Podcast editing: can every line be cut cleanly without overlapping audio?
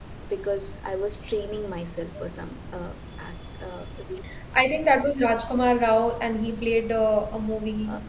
Yes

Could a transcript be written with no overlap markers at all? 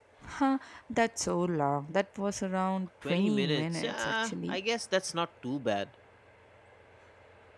No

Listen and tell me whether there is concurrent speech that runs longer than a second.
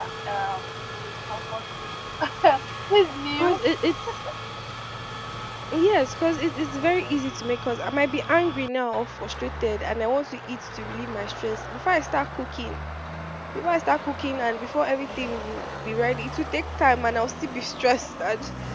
No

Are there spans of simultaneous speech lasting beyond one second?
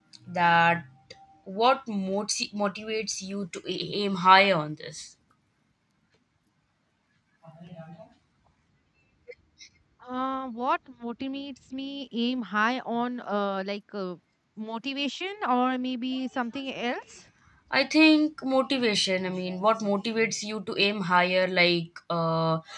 No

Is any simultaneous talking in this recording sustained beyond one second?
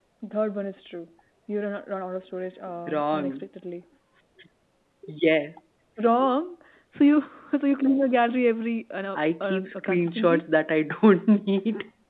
Yes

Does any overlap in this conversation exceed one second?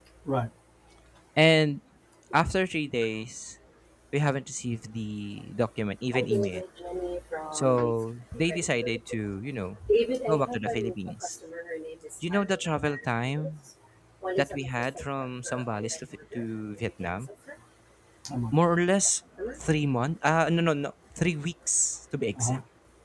Yes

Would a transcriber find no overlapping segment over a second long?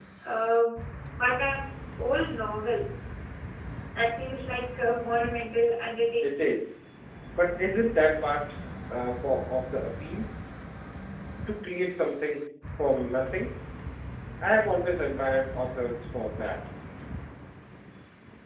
Yes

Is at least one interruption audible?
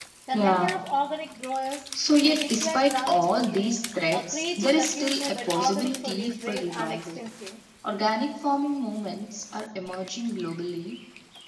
Yes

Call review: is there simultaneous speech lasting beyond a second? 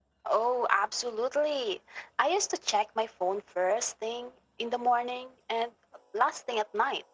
No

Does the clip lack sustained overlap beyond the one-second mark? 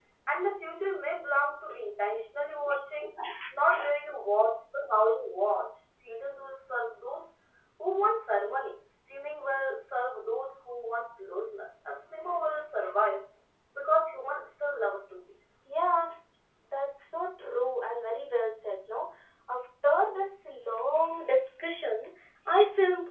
Yes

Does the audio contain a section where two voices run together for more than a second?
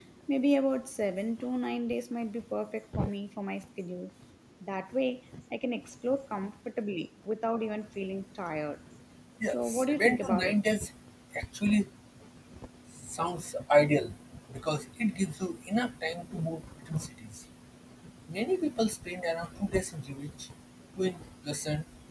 Yes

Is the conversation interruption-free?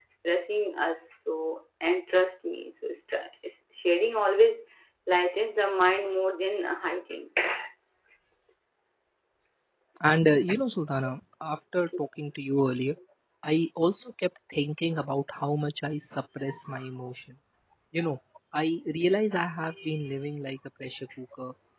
Yes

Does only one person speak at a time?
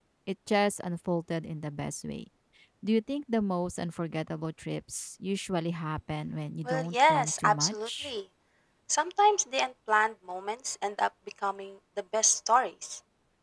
No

